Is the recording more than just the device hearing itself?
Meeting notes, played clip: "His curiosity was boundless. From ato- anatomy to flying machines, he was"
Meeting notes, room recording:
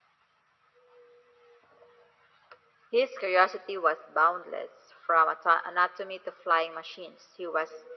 No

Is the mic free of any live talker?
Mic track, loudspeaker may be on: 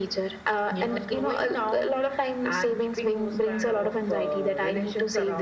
Yes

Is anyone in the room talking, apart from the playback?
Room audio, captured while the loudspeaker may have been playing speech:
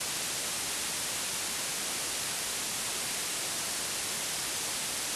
No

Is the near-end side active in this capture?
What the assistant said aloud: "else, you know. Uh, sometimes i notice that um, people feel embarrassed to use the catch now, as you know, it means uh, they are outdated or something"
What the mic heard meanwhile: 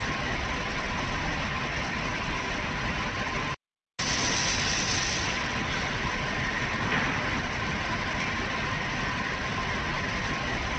No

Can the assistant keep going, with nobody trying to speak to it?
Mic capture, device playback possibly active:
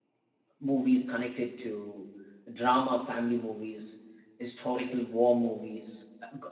No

